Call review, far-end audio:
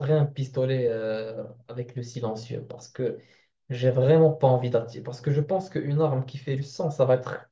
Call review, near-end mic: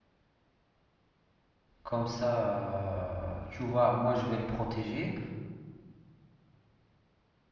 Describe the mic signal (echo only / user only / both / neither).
user only